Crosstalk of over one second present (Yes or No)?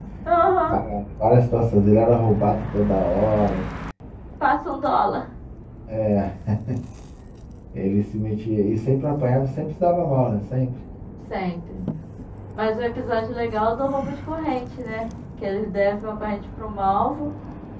No